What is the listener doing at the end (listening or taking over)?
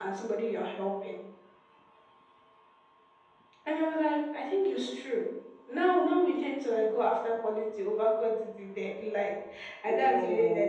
listening